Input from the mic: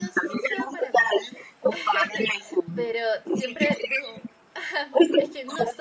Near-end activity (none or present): present